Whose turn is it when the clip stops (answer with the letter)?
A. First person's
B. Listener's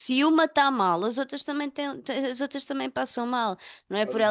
B